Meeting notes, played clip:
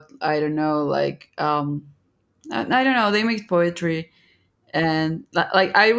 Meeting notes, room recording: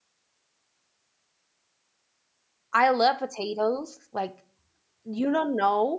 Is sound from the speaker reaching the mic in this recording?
No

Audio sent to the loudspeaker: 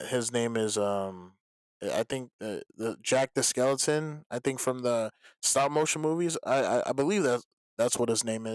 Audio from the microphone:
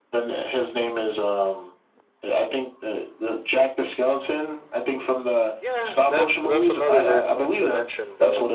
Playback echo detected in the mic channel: Yes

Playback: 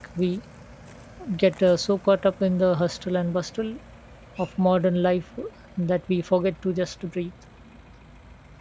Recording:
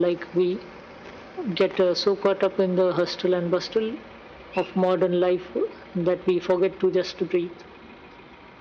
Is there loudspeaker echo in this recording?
Yes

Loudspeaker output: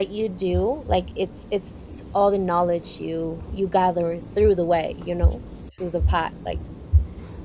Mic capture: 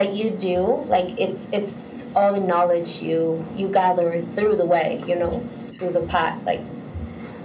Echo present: Yes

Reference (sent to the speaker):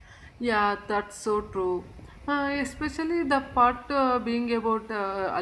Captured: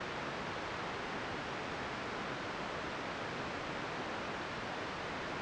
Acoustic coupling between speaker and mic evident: No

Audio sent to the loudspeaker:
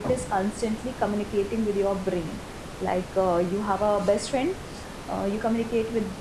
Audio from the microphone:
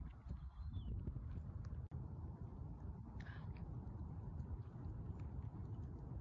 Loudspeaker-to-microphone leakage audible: No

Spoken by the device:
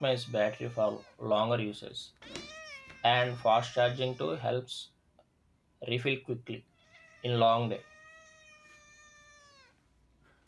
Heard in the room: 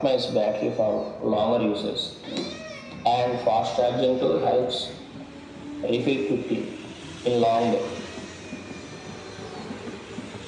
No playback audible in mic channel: No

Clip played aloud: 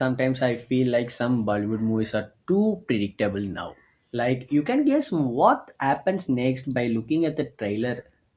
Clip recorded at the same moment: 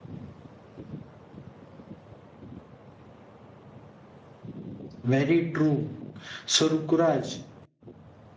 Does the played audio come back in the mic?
No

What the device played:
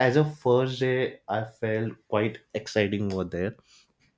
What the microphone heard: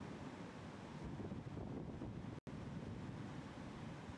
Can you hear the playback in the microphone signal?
No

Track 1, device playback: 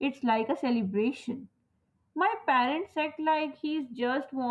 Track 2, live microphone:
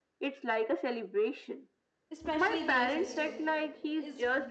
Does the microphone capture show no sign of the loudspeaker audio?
No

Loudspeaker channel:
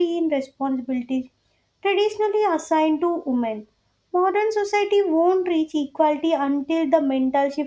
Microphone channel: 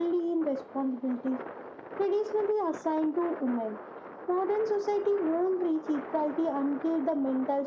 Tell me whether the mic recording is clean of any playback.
No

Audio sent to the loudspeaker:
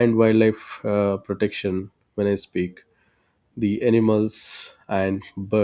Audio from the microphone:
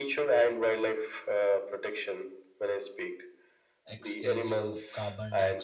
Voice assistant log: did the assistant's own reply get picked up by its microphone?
Yes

